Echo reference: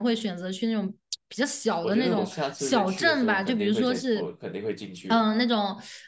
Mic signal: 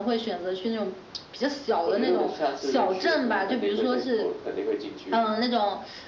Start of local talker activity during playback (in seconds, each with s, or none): none